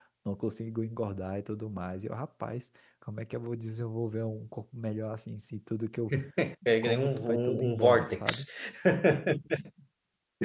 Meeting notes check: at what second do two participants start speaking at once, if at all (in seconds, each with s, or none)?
6.8 s